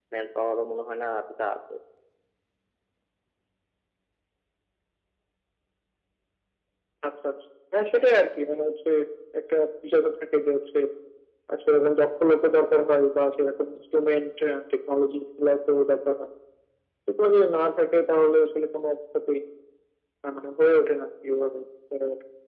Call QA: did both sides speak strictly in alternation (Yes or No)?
Yes